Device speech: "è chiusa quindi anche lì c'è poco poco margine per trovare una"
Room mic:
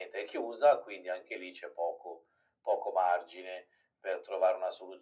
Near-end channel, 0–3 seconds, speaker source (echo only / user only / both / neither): echo only